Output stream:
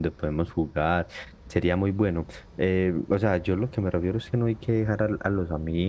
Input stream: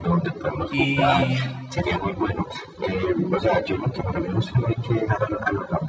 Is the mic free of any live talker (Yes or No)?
No